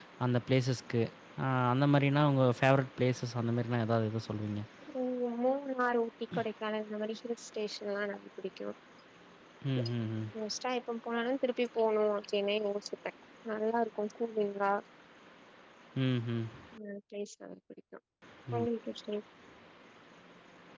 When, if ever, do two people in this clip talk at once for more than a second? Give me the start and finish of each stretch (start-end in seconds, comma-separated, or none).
none